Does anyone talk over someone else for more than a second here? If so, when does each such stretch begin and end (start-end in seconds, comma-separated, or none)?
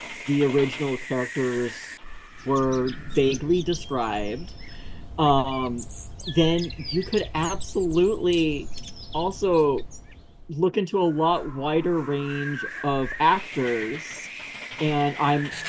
none